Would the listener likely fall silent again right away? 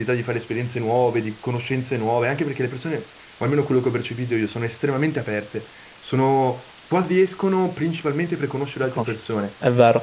No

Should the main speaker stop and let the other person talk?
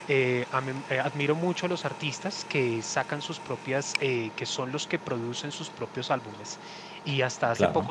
No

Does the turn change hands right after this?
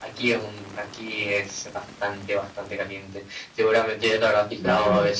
No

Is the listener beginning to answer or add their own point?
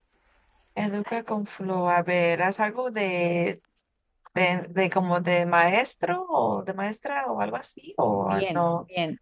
Yes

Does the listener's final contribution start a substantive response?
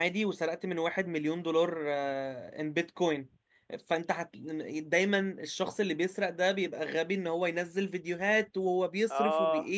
No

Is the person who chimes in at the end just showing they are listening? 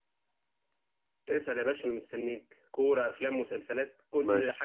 No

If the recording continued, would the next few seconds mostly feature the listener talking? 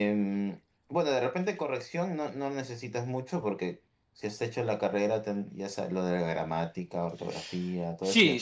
Yes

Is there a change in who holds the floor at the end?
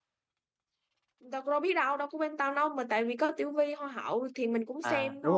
Yes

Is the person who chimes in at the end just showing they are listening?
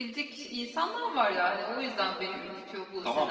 No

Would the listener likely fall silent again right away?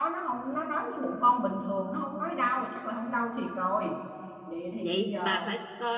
No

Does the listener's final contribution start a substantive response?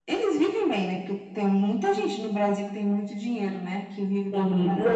Yes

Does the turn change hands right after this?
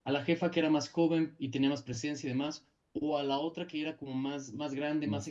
No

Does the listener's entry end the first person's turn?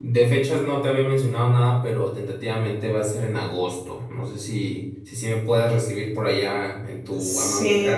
Yes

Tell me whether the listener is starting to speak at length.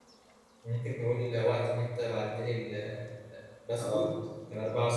No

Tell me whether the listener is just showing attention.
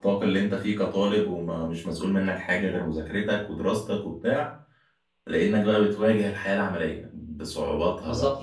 No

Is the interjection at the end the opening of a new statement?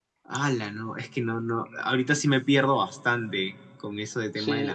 Yes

